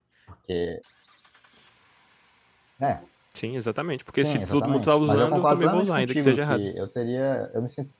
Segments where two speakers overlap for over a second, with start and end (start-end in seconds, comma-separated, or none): 4.1-6.7